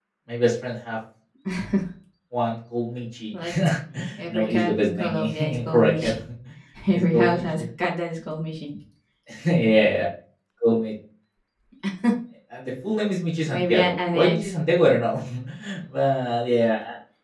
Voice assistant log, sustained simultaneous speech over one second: present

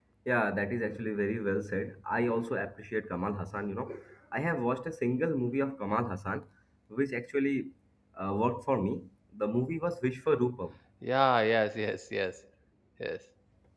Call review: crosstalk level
none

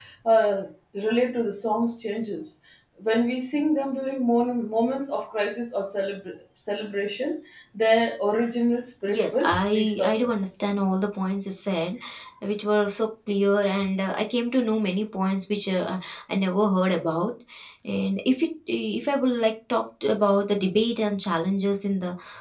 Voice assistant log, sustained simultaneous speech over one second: present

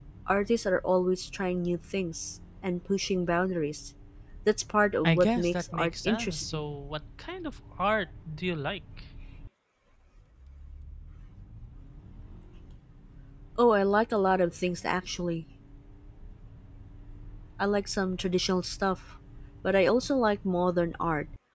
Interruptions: present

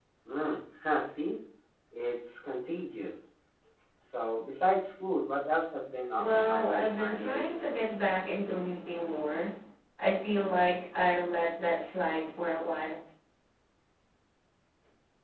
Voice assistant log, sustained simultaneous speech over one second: present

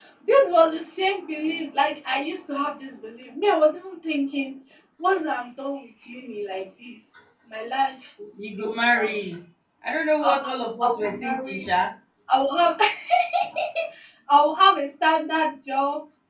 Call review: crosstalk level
present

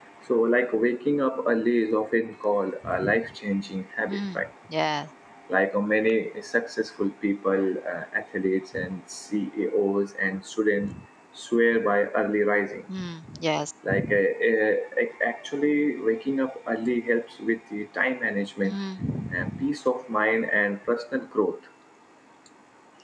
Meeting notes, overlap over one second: none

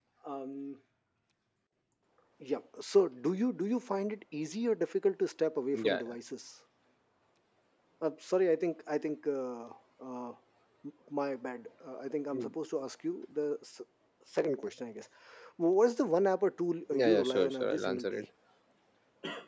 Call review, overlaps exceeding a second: present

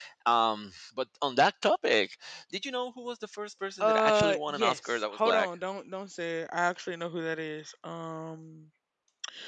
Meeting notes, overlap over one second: present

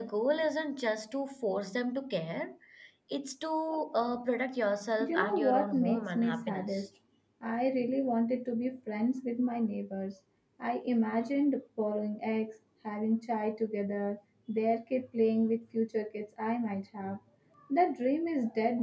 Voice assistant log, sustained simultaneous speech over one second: present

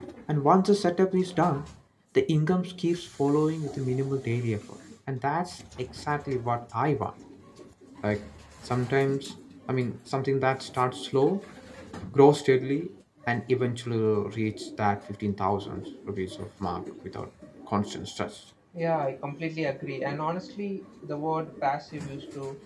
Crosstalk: none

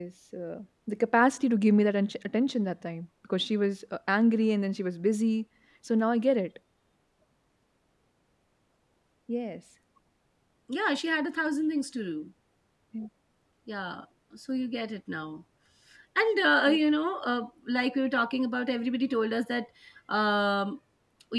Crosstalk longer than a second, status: none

